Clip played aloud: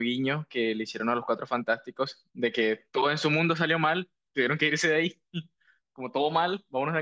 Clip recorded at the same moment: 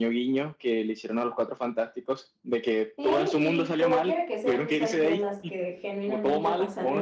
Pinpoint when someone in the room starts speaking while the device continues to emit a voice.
3 s

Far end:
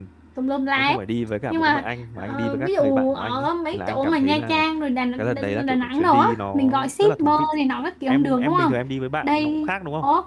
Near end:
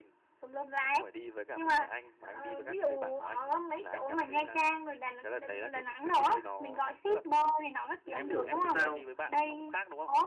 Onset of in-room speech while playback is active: 8 s

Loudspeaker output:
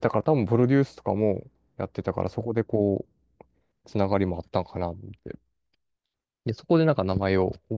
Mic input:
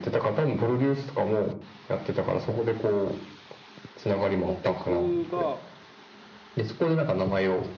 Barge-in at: 4 s

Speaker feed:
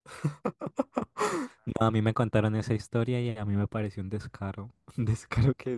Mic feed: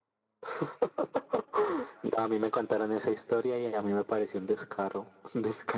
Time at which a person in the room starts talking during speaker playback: none

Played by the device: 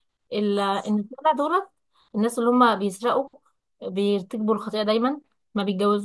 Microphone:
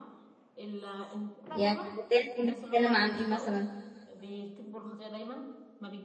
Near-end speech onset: 2 s

